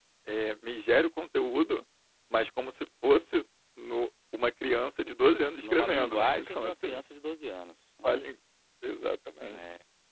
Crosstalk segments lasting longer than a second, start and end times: 5.6-7.0

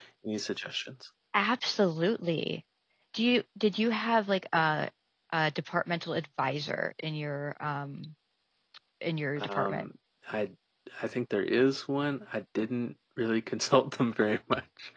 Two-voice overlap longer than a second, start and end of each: none

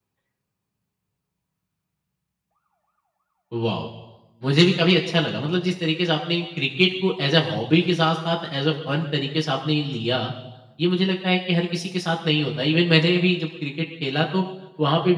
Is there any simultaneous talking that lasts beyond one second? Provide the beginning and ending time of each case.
none

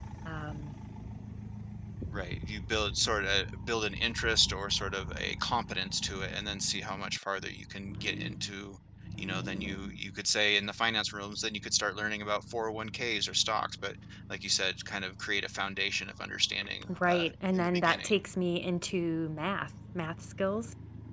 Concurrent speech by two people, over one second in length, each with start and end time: 17.0-18.2

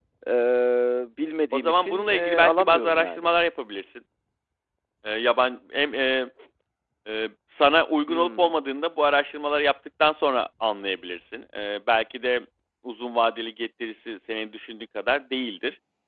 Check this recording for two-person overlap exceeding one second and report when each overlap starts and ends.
1.5-3.2

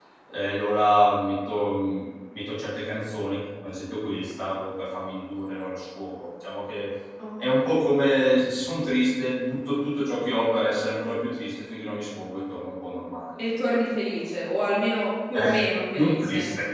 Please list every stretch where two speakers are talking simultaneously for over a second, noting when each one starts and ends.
none

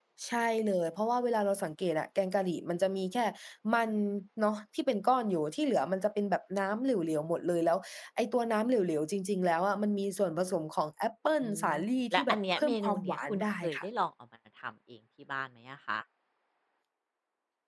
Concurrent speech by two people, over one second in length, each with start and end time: 12.1-13.9

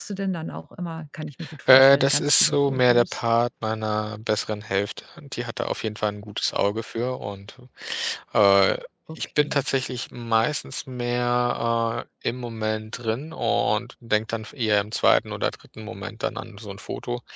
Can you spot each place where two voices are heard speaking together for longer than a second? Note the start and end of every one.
1.7-3.2

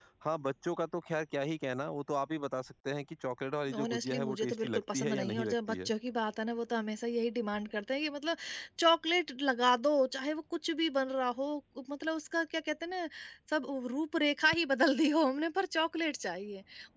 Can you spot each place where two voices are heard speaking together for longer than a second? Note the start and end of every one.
3.8-5.9

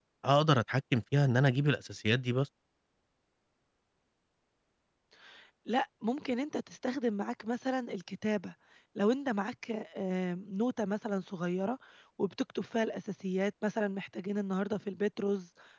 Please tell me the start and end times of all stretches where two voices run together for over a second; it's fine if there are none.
none

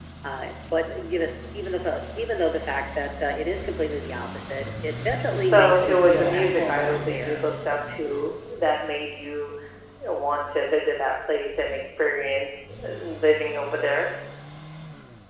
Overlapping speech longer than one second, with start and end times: 5.4-7.4

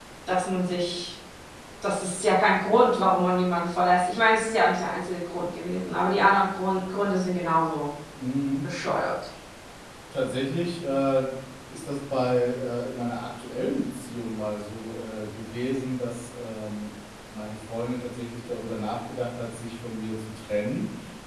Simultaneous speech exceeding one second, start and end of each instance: none

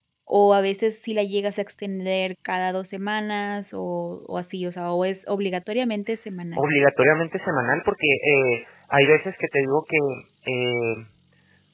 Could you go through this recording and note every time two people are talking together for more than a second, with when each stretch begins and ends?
none

